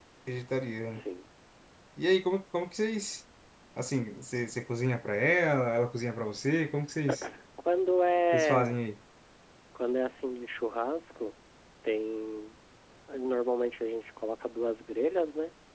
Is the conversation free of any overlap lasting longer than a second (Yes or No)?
Yes